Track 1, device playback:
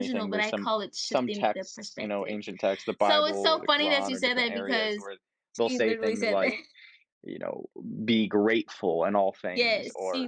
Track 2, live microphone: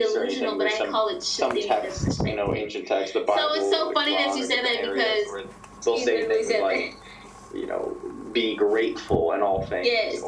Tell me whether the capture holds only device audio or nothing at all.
Yes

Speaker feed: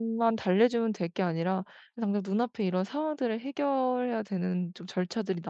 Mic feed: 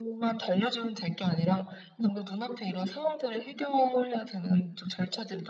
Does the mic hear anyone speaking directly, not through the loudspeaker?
No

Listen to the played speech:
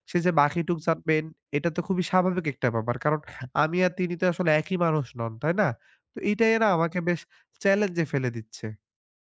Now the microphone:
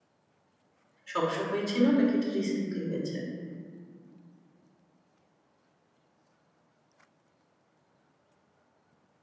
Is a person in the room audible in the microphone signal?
Yes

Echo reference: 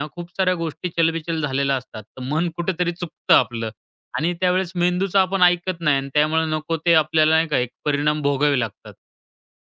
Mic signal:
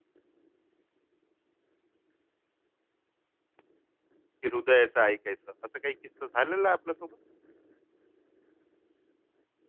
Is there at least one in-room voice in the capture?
Yes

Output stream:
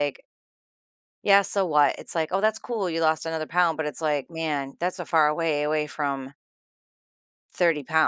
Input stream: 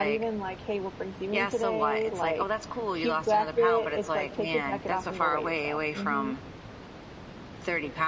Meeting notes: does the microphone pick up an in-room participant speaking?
Yes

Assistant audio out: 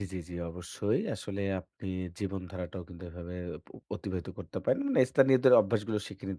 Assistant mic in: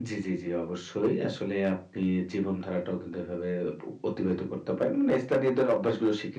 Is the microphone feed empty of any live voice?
Yes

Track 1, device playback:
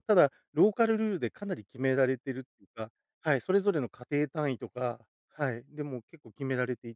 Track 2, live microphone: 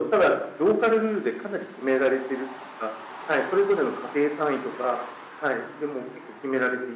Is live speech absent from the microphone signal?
Yes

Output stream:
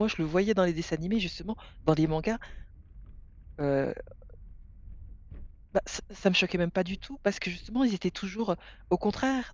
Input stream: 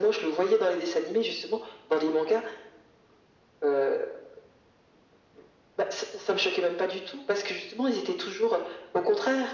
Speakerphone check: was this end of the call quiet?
Yes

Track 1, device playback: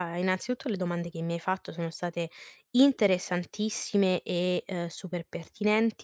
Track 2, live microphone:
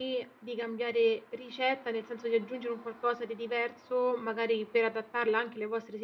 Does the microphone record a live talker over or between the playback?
Yes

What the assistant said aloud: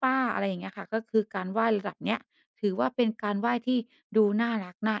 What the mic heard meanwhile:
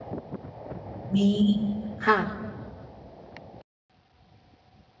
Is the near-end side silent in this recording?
No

